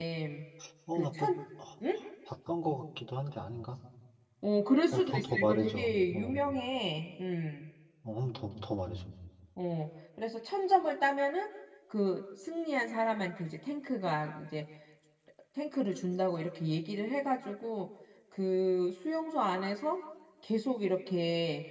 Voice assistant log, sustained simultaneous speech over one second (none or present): present